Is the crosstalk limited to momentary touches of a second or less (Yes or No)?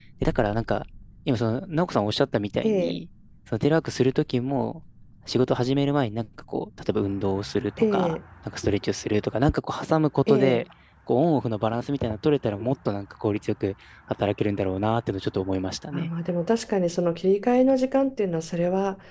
Yes